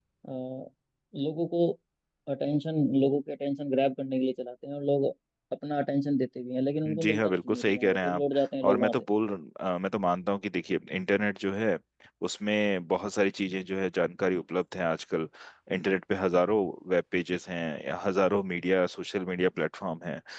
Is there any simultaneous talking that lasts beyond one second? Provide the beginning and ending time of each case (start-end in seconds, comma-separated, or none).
6.9-8.2